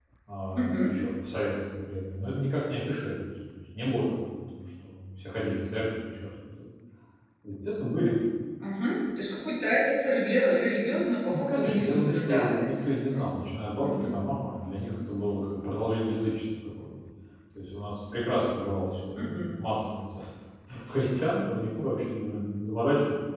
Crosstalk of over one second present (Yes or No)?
Yes